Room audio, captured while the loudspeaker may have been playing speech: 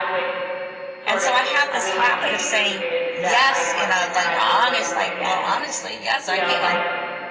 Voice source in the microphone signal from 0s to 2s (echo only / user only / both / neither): both